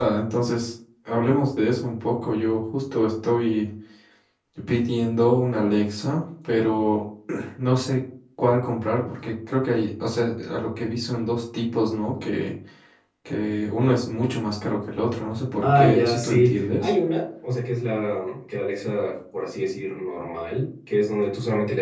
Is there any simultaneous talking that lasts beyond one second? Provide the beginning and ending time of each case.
15.7-16.9

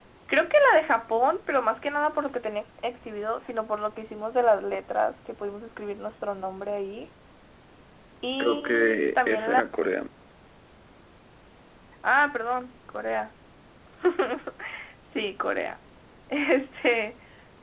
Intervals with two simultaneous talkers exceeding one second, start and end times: 8.4-9.6

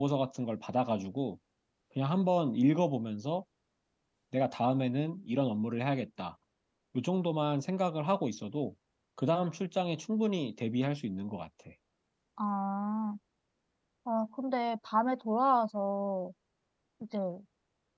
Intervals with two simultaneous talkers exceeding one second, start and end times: none

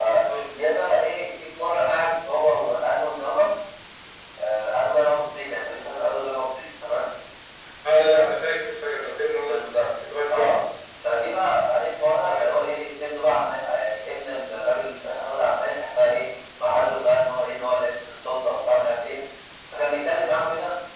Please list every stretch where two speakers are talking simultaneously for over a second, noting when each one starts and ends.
none

